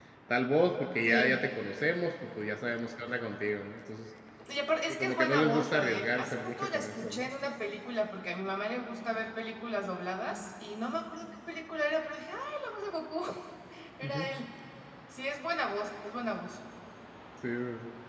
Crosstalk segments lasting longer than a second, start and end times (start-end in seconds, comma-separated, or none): 4.9-7.3